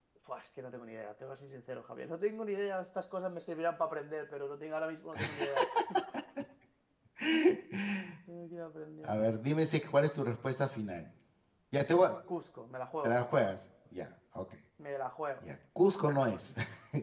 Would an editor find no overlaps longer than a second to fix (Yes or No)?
Yes